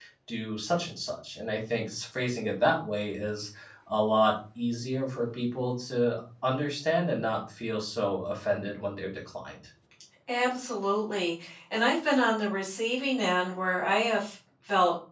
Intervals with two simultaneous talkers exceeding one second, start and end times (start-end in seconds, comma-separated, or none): none